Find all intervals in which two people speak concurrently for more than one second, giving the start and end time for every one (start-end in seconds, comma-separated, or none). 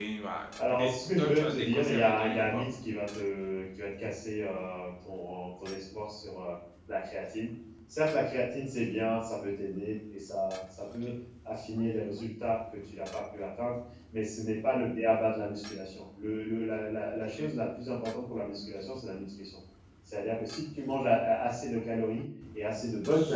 0.7-2.6